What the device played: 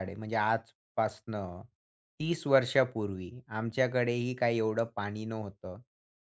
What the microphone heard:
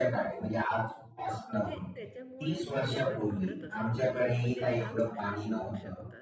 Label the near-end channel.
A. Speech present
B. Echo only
A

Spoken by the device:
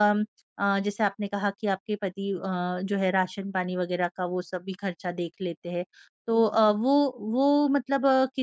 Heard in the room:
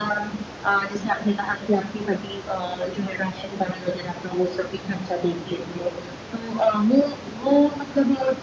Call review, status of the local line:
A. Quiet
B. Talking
A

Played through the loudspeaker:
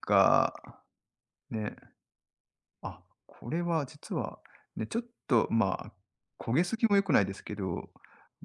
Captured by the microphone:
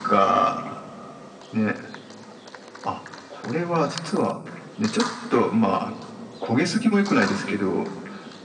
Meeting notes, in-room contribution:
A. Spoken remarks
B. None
B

